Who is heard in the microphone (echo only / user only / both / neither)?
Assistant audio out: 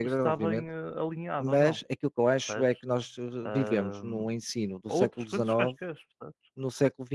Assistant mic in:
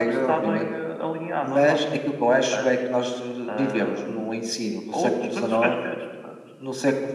echo only